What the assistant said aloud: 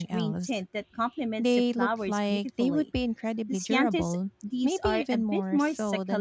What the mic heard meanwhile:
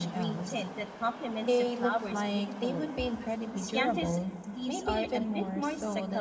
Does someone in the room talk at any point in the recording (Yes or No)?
No